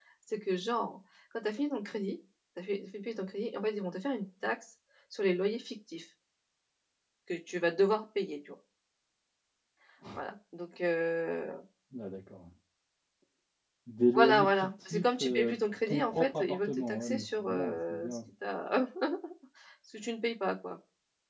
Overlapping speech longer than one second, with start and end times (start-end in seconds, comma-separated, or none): 14.1-18.2